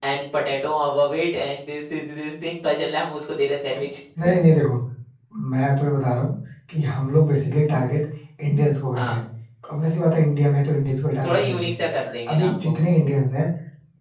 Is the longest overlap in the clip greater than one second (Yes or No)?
No